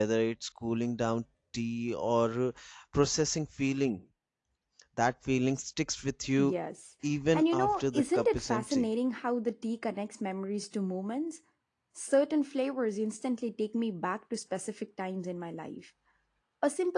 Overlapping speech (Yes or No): Yes